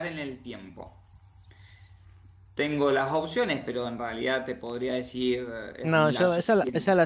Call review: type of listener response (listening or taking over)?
taking over